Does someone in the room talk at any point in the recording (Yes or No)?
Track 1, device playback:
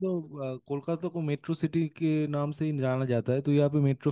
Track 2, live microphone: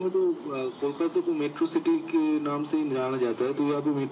No